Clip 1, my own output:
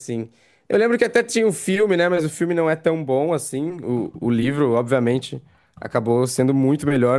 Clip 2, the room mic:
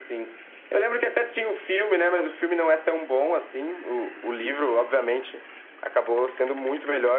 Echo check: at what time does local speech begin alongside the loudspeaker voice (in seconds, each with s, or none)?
none